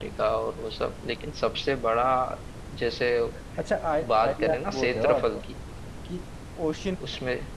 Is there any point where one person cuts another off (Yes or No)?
Yes